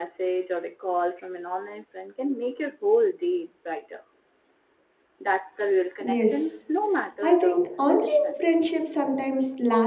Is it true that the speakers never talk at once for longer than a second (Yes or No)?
No